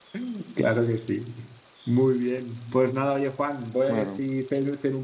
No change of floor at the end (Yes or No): Yes